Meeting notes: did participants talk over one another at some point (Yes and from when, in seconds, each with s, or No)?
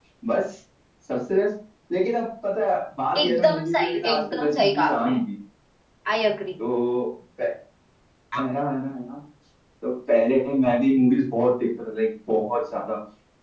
Yes, from 3.1 s